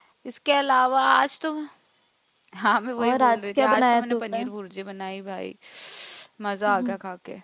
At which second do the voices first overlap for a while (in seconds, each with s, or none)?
3.0 s